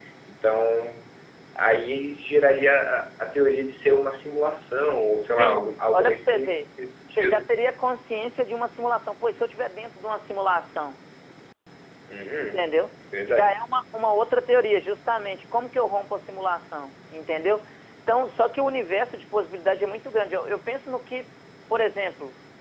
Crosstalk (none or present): present